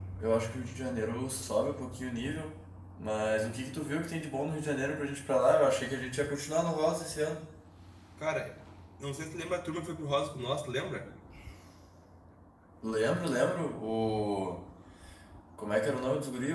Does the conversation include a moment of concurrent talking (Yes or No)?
No